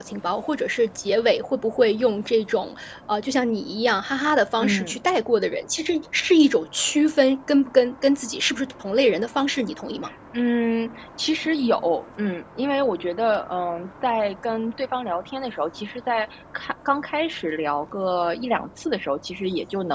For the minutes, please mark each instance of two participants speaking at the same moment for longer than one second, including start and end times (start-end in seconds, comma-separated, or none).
none